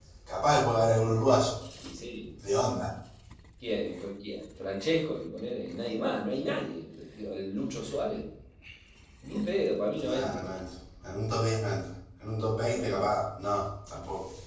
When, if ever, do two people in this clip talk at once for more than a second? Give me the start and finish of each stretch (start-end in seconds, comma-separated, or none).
none